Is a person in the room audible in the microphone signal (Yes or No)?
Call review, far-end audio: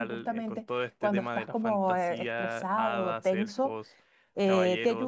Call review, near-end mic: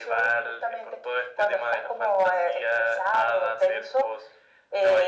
No